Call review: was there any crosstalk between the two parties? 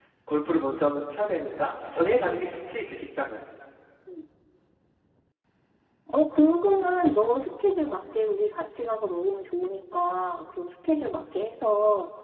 No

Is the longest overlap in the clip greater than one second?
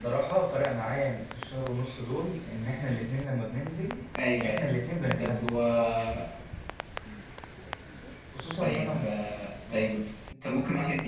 Yes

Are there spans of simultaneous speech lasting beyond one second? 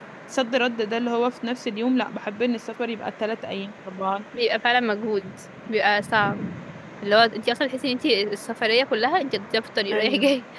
No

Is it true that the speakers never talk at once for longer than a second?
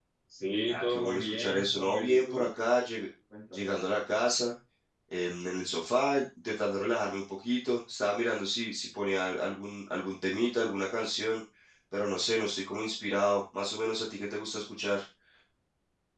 No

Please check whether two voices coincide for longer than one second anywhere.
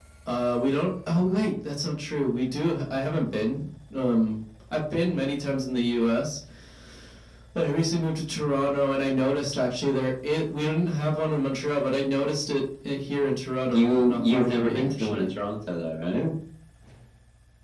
Yes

